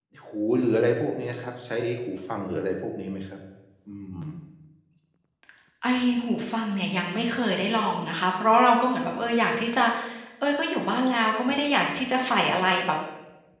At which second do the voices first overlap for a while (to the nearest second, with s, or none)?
none